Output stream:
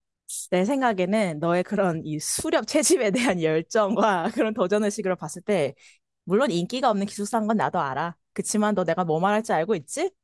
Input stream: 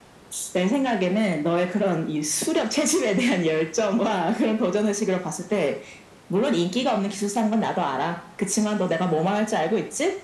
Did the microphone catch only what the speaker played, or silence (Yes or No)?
Yes